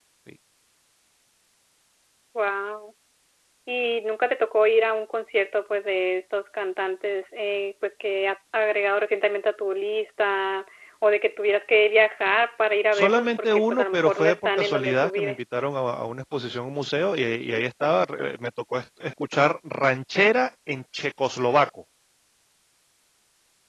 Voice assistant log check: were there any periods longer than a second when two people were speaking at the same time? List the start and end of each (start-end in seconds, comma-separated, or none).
12.9-15.4